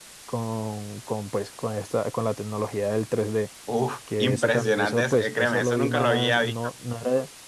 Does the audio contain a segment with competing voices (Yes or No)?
Yes